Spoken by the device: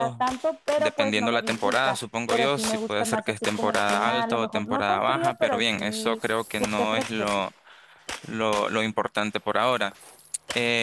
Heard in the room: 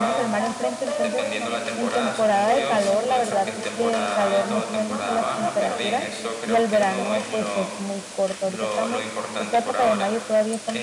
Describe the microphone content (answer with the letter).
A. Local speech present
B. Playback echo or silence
A